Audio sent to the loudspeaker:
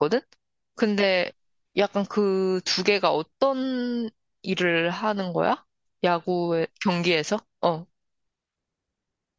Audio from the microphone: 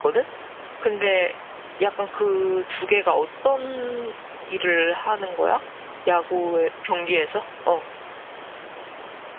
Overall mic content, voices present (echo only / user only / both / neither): echo only